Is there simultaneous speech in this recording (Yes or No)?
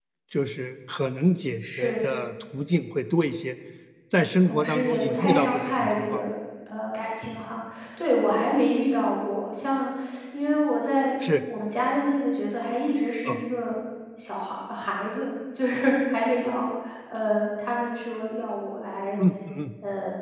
Yes